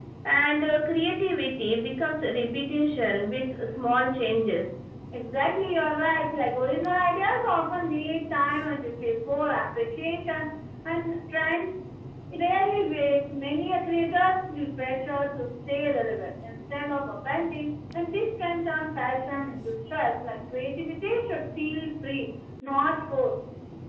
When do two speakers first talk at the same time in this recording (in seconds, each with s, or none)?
none